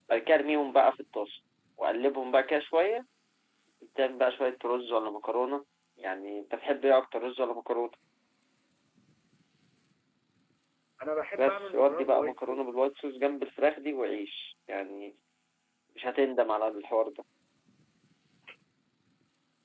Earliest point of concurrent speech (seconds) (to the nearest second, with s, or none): 11 s